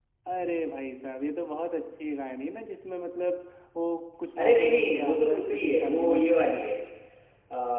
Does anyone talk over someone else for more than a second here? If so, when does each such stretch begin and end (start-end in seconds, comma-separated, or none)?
4.4-6.2